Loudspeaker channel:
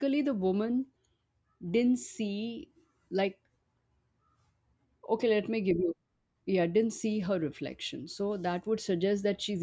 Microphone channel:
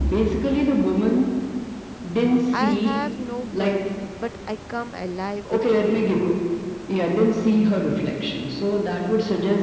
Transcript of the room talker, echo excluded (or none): I have no body, but I come alive with wind.